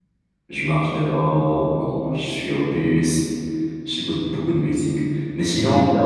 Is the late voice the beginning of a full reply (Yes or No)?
No